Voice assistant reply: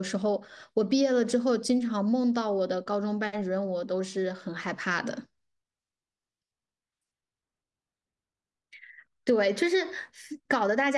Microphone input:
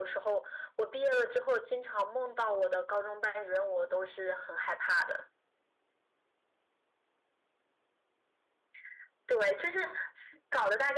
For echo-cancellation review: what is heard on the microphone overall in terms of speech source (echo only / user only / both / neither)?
echo only